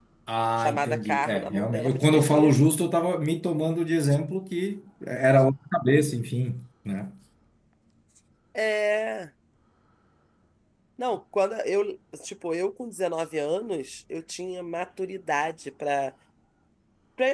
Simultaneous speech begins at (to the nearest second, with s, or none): 1 s